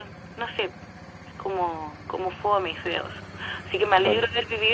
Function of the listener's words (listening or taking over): listening